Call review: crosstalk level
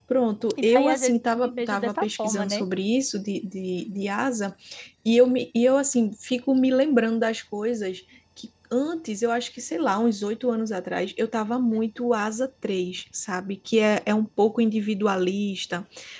present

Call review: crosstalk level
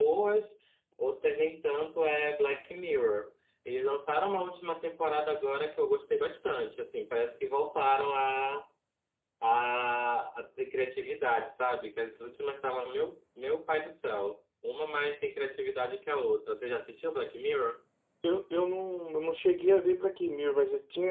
none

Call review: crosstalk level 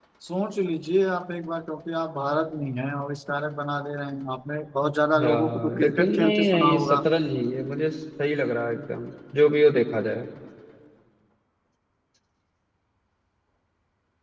present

